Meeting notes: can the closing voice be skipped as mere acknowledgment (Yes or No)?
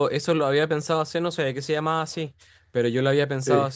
Yes